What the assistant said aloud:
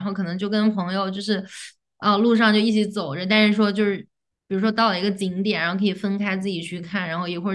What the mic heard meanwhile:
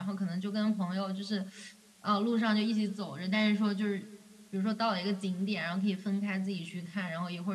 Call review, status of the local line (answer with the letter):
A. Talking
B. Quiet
B